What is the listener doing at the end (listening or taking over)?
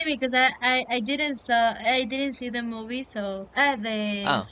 listening